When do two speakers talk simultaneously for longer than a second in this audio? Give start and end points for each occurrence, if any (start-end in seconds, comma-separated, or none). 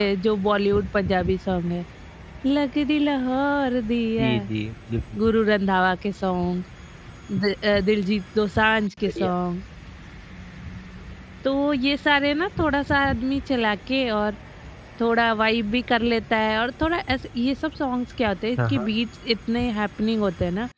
none